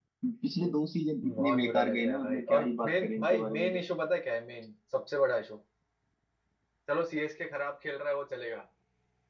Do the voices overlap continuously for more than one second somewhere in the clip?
Yes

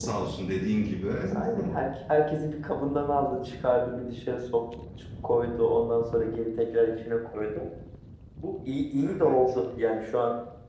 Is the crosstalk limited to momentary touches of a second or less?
Yes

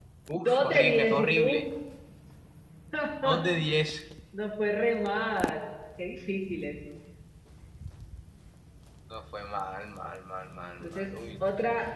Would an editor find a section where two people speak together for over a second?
Yes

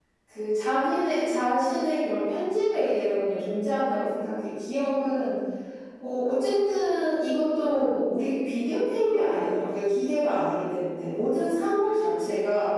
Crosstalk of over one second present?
No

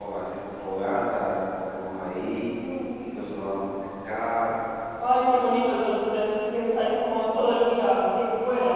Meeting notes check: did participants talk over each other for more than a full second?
No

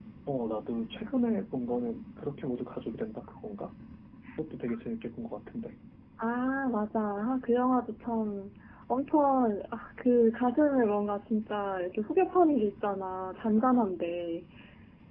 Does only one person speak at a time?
Yes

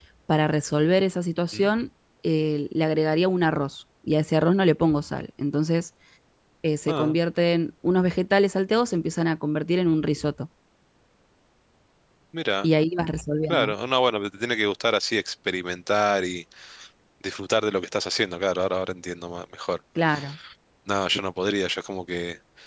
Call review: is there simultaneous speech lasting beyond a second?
No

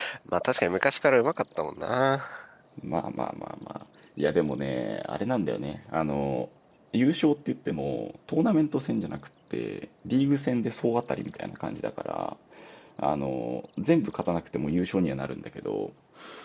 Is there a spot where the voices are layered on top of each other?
No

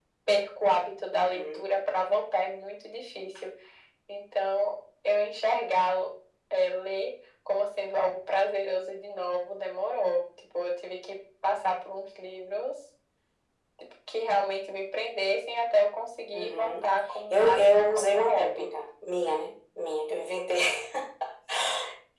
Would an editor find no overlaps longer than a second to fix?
No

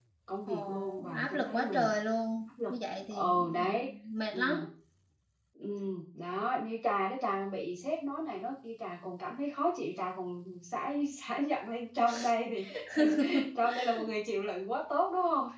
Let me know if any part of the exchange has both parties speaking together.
Yes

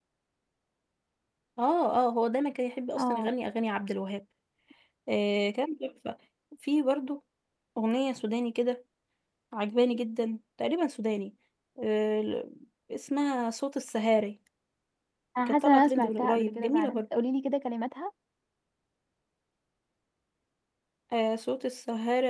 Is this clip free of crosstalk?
No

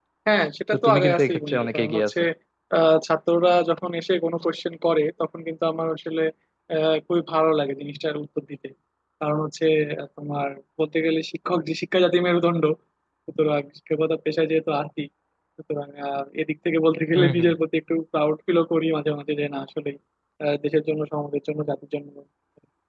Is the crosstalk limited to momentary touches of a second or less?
No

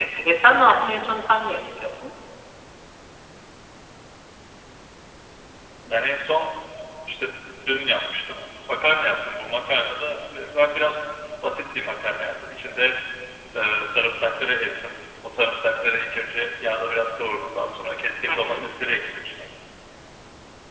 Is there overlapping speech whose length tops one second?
No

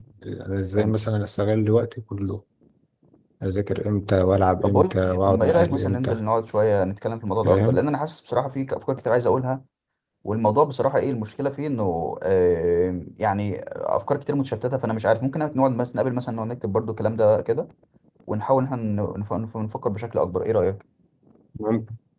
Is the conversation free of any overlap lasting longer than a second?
No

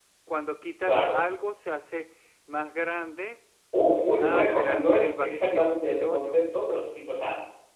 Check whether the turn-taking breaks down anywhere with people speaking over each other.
Yes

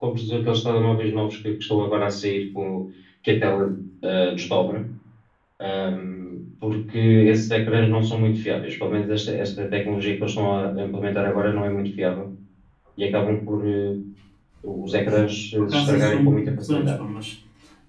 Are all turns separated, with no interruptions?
No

